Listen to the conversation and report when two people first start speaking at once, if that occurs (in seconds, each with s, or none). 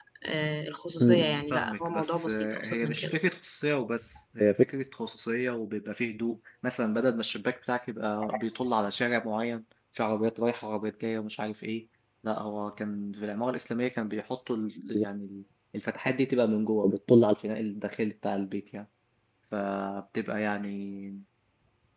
1.0 s